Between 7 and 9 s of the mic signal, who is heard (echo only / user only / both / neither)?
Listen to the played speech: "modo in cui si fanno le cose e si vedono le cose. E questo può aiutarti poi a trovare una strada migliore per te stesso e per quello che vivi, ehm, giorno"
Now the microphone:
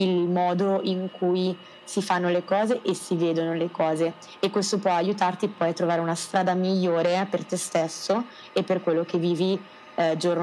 echo only